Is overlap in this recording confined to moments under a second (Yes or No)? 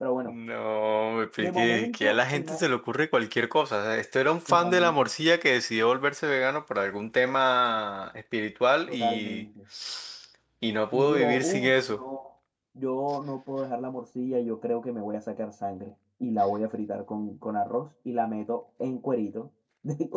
No